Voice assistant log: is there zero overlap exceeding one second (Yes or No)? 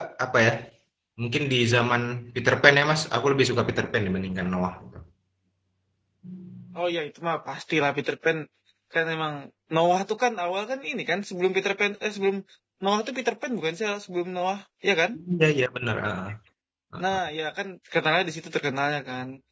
Yes